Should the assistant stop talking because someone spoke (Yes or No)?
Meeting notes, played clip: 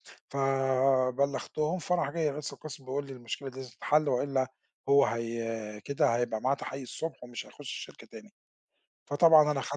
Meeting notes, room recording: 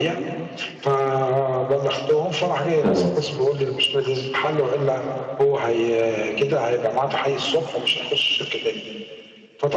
Yes